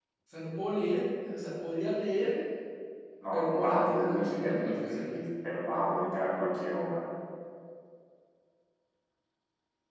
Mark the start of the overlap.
3.3 s

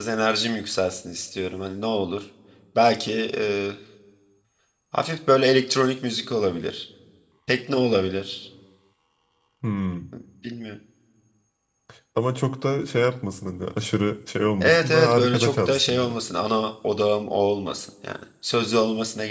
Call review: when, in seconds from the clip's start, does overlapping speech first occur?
14.6 s

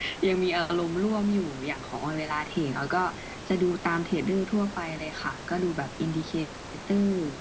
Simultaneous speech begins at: none

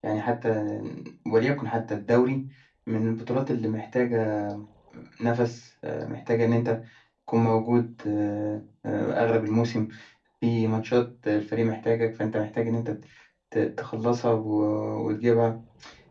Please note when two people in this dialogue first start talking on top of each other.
none

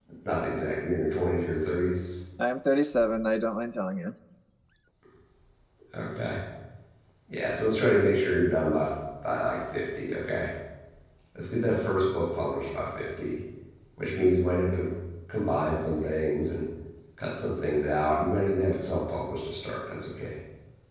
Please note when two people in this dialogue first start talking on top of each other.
none

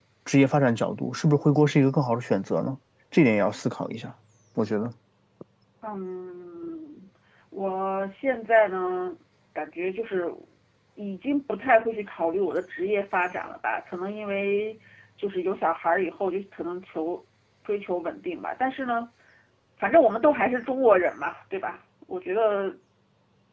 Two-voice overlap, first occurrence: none

